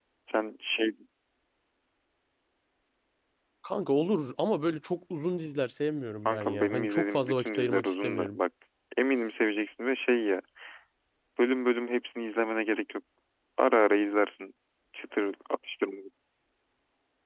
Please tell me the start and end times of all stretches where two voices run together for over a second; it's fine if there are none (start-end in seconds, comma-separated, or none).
6.2-8.4